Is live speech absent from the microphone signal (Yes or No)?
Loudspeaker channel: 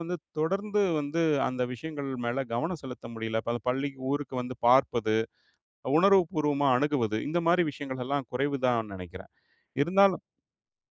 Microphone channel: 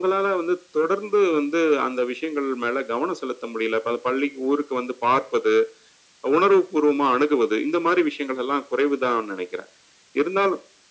Yes